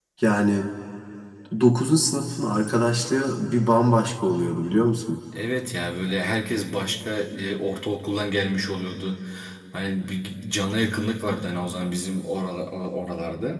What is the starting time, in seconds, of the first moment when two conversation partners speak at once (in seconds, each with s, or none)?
none